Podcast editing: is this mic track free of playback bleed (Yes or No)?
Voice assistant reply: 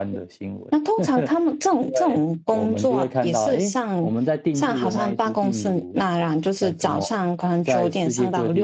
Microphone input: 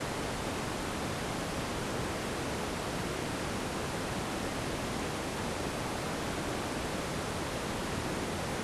Yes